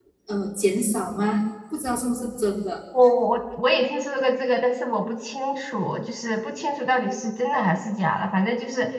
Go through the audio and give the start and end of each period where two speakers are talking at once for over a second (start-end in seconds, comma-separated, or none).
none